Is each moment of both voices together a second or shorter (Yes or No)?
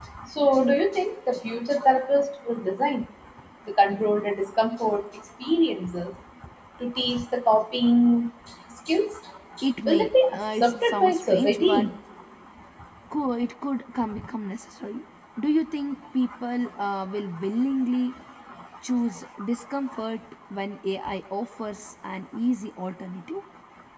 No